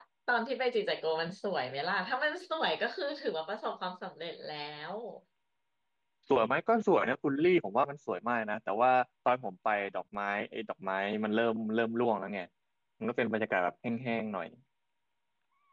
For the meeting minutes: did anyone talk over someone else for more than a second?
No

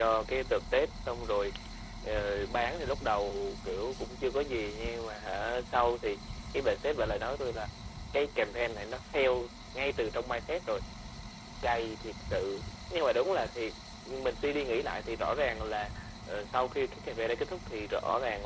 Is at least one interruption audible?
No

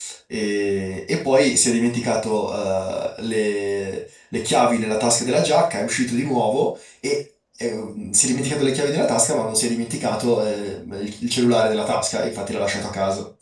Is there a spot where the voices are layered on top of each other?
No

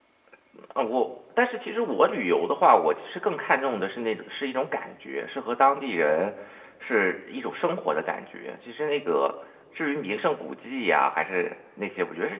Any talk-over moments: No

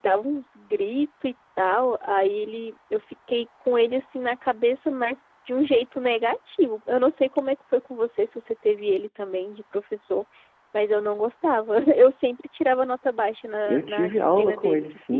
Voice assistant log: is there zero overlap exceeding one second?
No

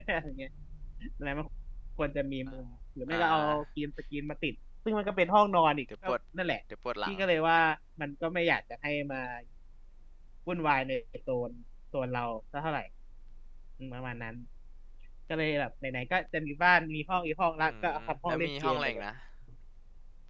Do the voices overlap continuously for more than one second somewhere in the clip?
Yes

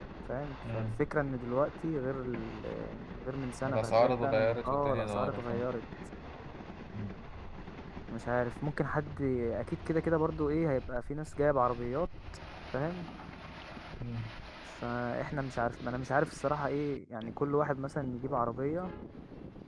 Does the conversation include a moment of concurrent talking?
Yes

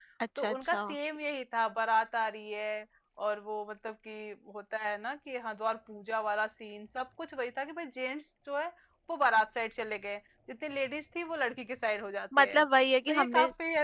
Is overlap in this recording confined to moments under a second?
Yes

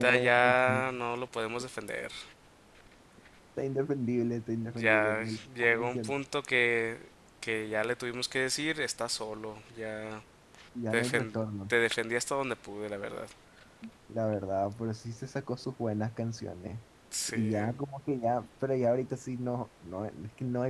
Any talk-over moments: Yes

